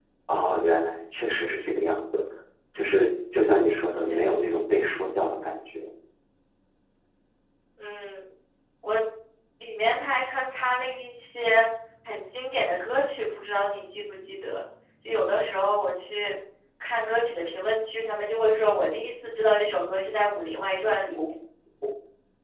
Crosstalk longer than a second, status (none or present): none